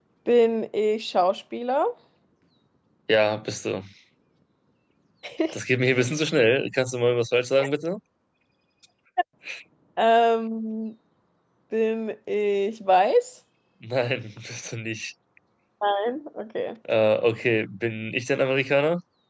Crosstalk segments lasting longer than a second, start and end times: none

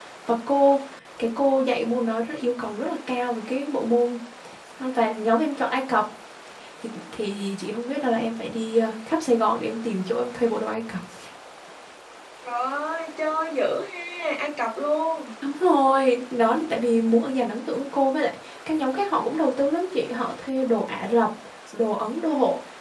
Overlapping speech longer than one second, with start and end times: none

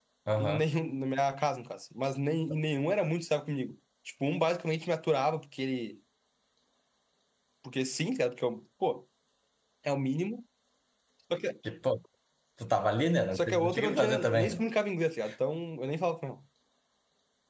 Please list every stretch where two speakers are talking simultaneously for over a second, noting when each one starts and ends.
13.3-14.6

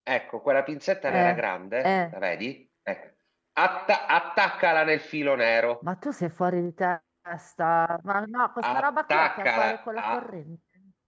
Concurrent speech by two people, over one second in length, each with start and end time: 8.6-10.2

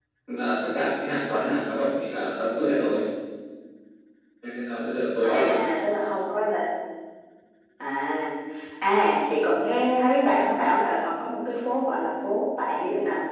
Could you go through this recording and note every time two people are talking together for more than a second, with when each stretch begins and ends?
none

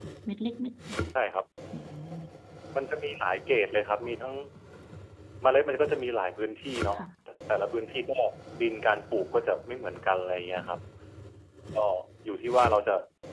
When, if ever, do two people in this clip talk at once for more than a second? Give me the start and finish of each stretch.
none

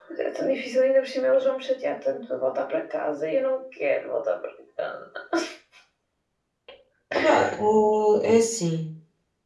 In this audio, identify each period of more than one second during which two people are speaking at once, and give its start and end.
none

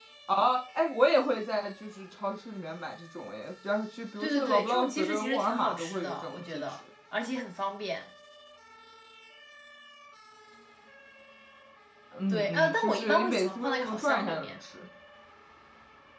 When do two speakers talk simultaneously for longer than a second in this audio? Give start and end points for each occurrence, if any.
4.2-6.6, 12.3-14.6

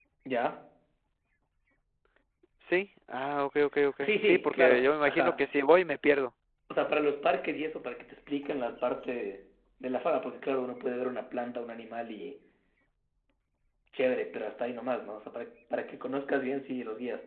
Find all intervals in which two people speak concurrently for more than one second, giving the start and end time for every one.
4.0-5.3

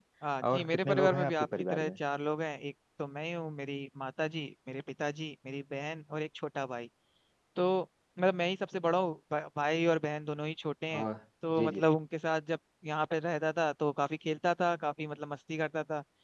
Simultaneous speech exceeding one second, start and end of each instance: 0.5-1.9

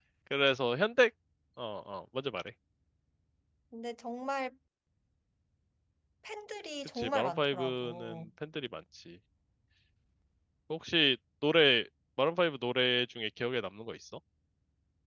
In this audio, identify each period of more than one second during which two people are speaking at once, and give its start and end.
7.0-8.2

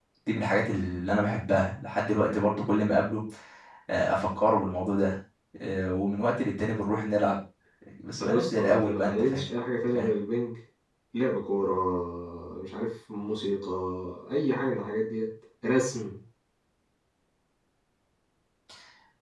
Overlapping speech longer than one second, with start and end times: 8.2-9.4

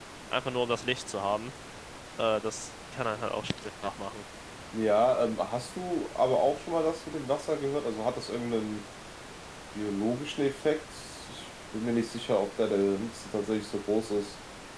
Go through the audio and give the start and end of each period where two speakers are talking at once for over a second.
none

